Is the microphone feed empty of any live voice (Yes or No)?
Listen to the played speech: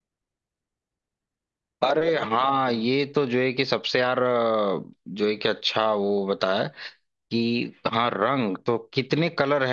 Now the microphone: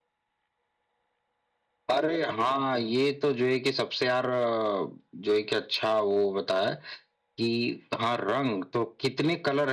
Yes